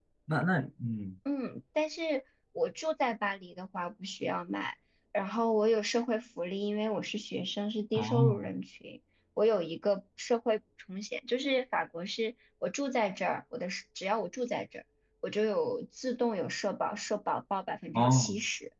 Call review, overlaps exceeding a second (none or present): none